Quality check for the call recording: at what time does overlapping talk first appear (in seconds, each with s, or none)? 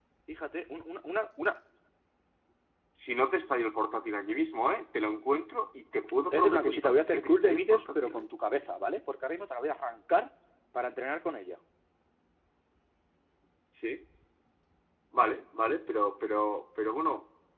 6.3 s